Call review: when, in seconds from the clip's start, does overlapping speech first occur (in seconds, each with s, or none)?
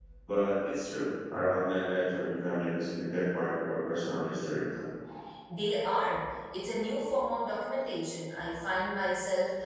none